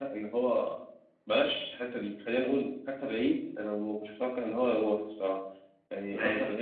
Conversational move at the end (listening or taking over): listening